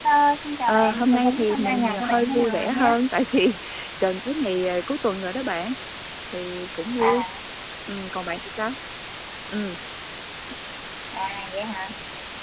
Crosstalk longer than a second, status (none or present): present